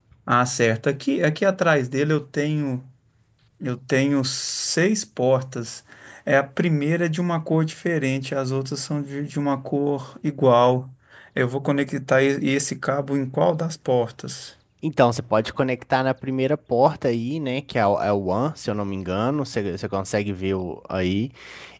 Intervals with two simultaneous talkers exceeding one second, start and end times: none

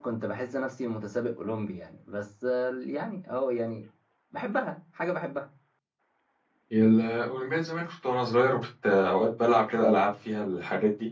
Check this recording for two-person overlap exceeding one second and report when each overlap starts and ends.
none

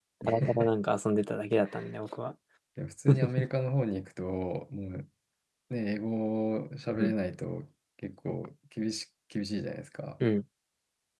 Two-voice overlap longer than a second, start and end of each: none

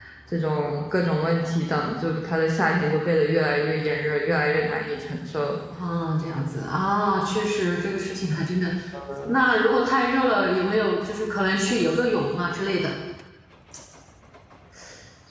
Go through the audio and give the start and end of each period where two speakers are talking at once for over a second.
none

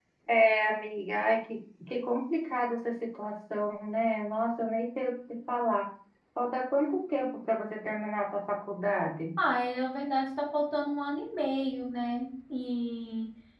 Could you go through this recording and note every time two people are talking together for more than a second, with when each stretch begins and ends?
none

